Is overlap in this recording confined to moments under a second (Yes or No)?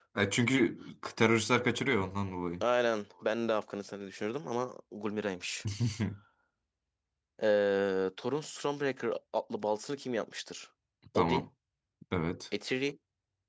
Yes